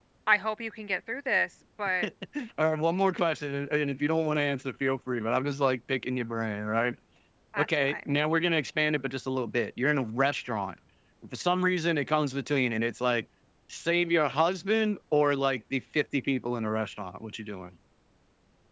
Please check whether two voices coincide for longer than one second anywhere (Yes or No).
No